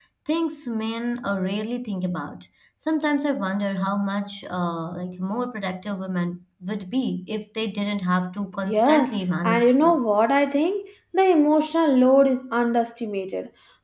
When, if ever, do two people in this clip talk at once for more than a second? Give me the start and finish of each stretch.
8.6-10.0

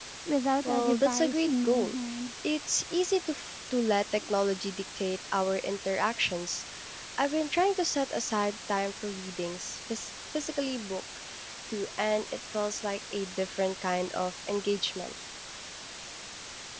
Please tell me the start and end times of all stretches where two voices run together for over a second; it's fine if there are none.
0.6-1.9

